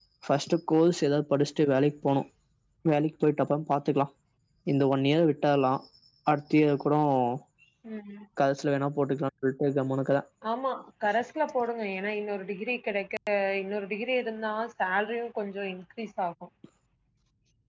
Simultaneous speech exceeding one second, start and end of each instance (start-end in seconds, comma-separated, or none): none